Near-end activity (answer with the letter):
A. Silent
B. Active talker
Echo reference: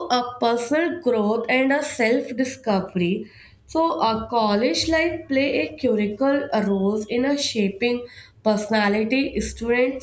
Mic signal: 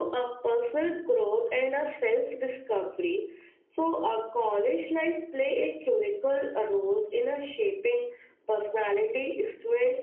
A